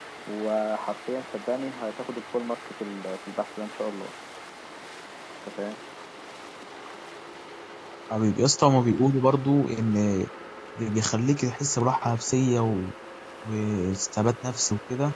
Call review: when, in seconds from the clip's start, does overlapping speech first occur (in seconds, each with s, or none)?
none